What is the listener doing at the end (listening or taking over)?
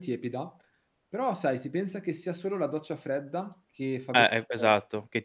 taking over